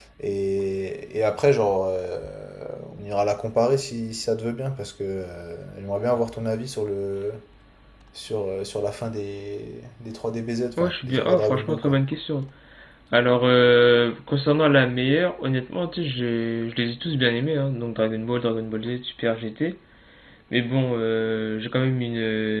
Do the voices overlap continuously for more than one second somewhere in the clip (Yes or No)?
Yes